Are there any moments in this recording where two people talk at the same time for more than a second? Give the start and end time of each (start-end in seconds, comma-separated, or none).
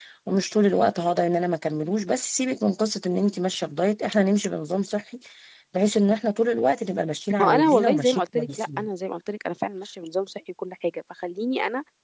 7.4-8.9